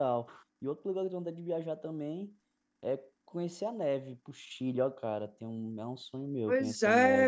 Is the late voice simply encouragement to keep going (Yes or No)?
No